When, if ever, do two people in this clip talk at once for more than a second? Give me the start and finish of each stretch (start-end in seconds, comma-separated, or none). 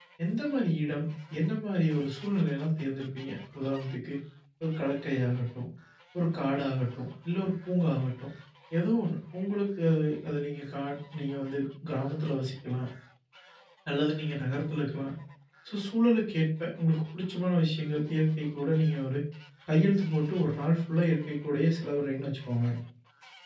none